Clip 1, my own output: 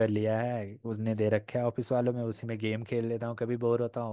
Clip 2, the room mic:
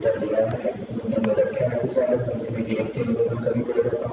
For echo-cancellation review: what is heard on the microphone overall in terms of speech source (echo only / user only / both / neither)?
echo only